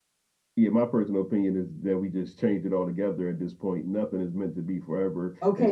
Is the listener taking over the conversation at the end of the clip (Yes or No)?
Yes